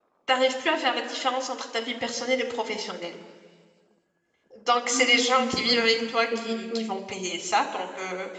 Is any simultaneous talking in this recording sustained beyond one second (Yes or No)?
Yes